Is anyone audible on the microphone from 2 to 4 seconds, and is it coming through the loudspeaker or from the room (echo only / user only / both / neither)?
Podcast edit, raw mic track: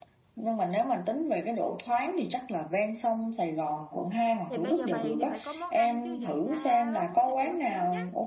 echo only